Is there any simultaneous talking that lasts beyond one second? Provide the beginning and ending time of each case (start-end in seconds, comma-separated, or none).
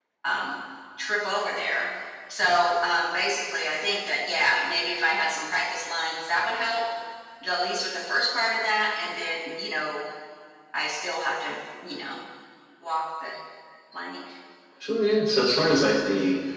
none